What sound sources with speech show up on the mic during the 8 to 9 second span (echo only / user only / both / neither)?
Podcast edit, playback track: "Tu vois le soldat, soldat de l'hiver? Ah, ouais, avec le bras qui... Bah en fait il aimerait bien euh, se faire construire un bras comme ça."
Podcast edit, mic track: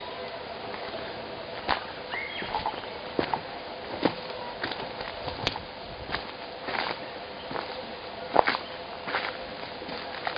neither